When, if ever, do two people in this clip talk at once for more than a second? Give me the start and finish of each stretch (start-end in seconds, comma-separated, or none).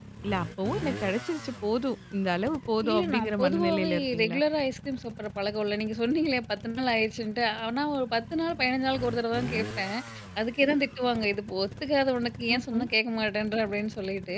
2.9-4.4